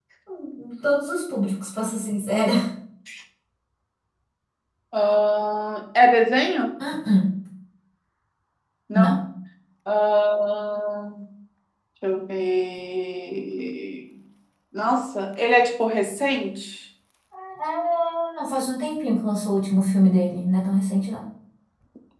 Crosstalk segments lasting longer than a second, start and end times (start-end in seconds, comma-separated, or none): none